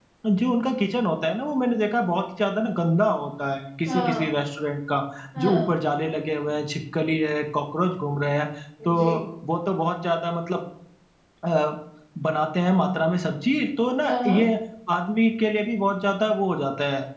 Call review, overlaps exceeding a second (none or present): none